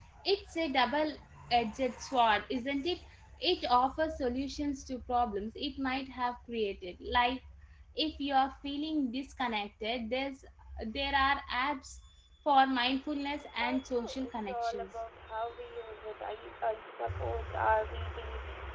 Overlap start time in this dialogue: 13.6 s

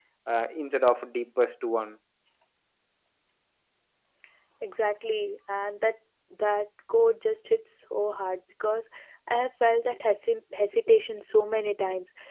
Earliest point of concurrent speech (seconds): none

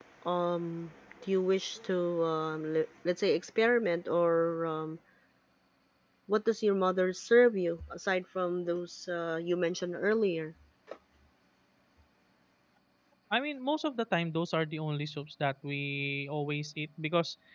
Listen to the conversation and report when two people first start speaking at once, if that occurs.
none

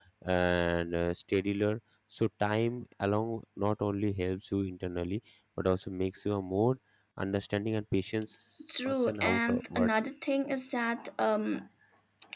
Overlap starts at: 8.9 s

